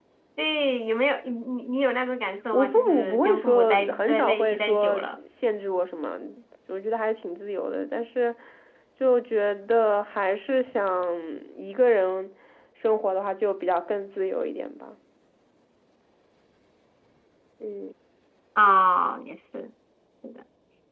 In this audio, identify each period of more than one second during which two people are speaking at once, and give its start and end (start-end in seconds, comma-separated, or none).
2.5-5.1